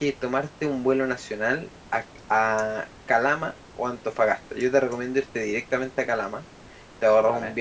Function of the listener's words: listening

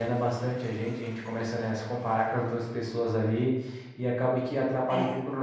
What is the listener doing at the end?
listening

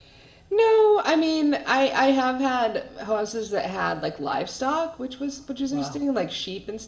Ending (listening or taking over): listening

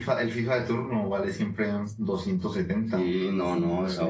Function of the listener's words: taking over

